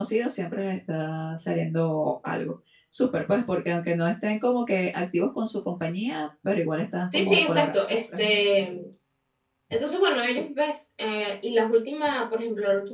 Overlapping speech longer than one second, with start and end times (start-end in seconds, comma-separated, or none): 7.1-8.3